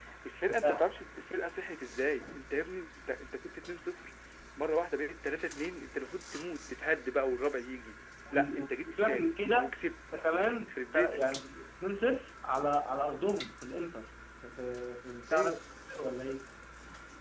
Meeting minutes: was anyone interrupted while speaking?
Yes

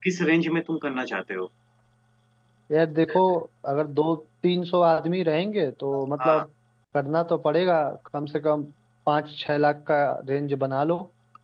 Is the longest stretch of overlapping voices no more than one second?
Yes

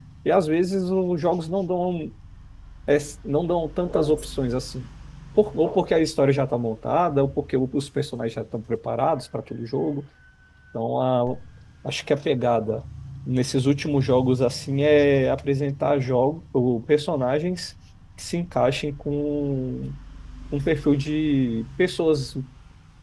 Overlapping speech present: No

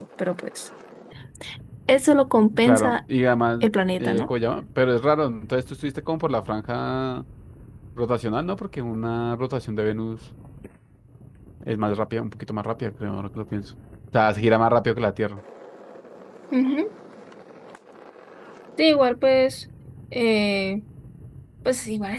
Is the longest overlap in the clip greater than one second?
No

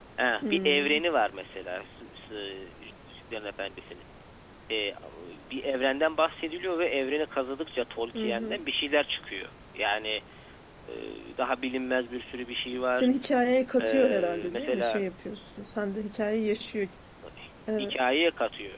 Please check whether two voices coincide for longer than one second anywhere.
Yes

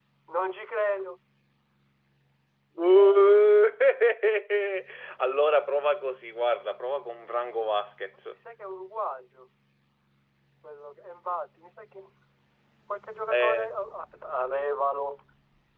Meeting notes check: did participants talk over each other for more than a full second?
No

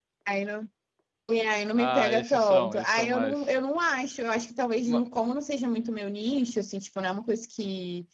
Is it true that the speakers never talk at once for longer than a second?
No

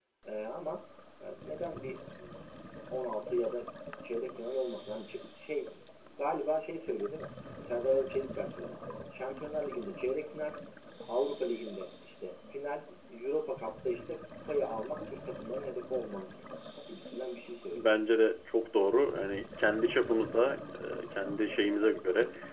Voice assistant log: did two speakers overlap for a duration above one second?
No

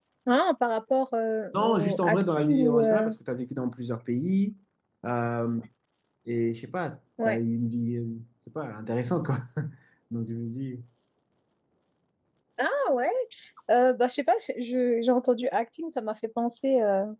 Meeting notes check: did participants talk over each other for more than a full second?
Yes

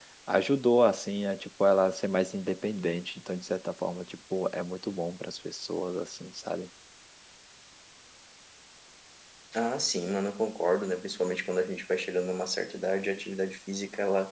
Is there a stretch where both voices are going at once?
No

